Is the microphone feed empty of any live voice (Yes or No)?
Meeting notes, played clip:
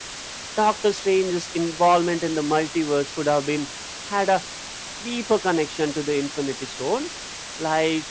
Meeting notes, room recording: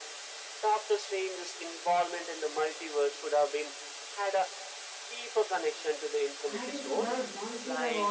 No